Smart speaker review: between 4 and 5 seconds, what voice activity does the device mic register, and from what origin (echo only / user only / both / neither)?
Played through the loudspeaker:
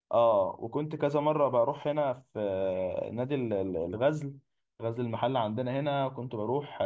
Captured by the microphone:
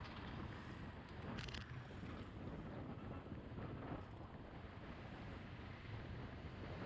neither